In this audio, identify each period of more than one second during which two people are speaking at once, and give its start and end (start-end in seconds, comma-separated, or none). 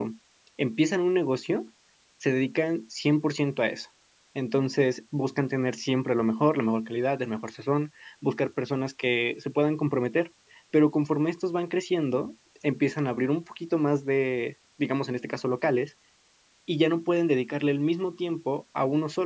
none